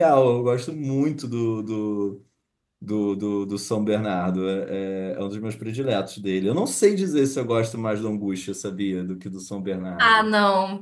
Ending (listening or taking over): taking over